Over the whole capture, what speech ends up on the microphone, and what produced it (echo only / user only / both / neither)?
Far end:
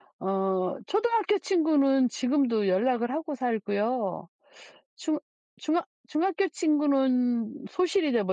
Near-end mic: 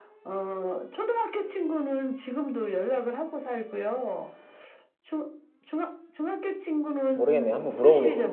both